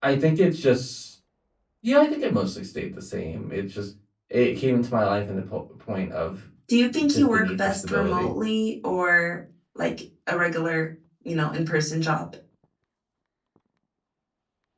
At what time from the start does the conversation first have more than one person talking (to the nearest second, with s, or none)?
7 s